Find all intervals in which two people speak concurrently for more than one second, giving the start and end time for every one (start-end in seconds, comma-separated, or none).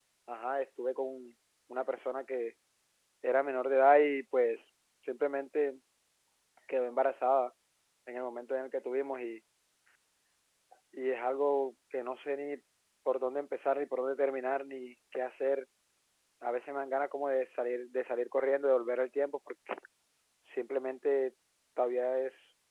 none